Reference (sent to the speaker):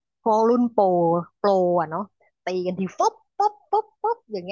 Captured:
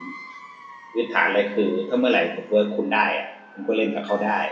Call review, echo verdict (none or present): none